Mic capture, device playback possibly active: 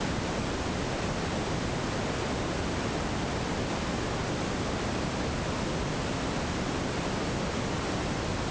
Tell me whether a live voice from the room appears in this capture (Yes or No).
No